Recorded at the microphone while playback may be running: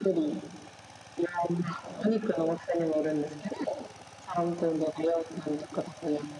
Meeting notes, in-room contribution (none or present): none